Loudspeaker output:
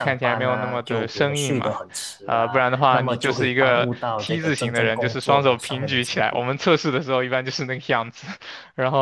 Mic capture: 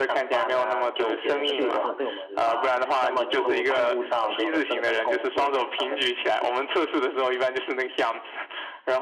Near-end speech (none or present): present